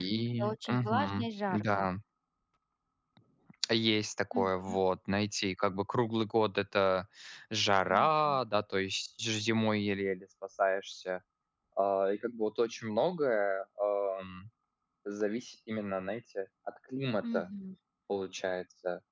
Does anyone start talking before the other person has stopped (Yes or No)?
Yes